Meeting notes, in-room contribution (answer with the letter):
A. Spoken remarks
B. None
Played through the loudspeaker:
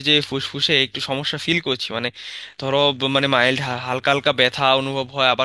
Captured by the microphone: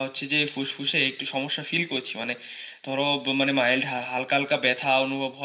B